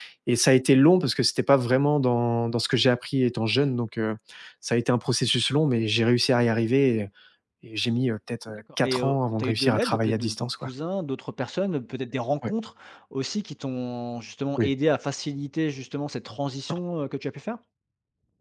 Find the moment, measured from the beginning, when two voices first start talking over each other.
8.8 s

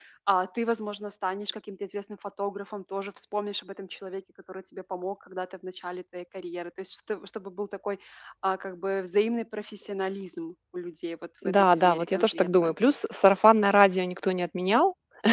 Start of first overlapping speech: 11.4 s

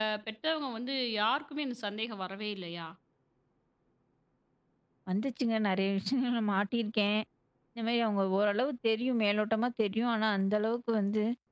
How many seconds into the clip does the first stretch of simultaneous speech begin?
none

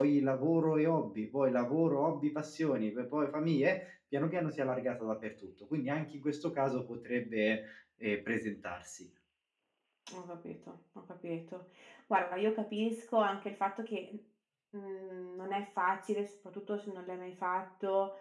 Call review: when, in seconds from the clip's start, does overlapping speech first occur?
none

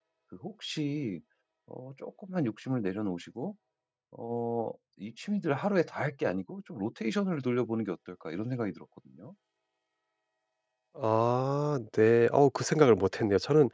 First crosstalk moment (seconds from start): none

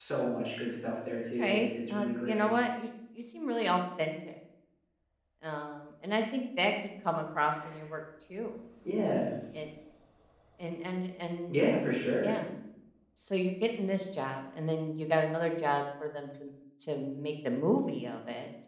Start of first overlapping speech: 1.1 s

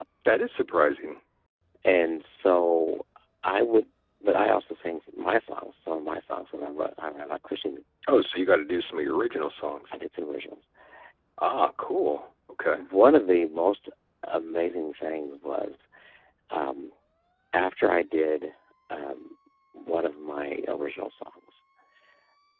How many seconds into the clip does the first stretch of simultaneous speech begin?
none

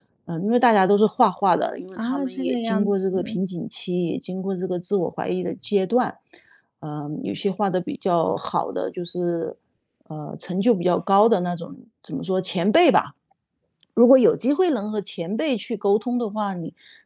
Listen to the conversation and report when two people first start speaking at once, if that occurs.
2.0 s

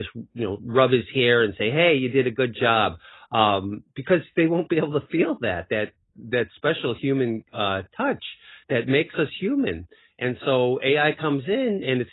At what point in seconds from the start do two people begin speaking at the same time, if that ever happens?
none

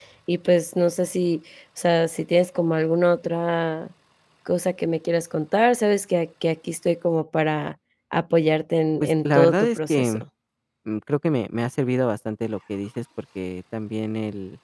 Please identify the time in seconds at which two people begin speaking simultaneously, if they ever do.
9.0 s

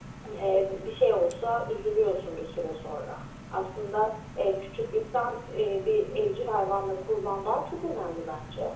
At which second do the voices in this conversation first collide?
none

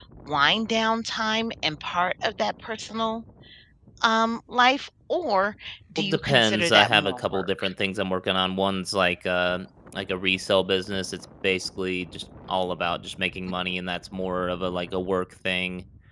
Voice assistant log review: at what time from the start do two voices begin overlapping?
6.0 s

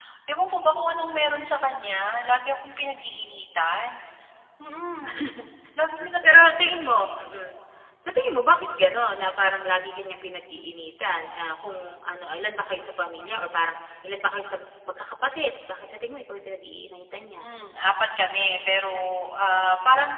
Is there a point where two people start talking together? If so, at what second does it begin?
none

